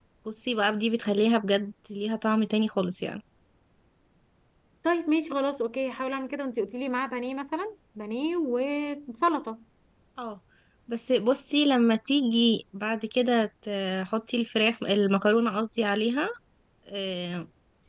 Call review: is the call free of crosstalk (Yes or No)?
Yes